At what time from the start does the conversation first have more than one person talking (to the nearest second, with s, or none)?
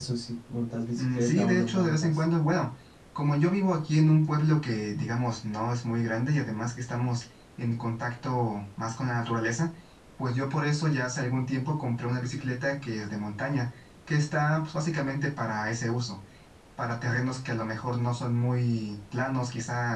1 s